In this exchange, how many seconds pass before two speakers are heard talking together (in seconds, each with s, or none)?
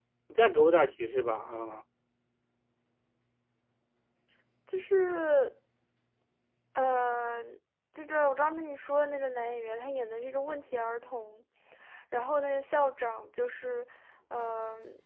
none